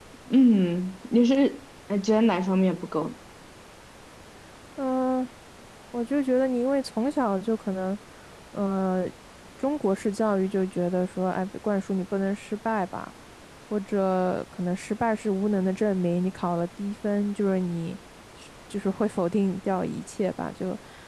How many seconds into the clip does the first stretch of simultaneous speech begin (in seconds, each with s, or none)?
none